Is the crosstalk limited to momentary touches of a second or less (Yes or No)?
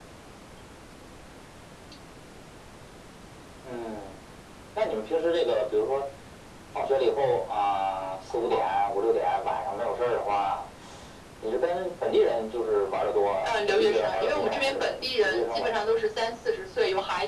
No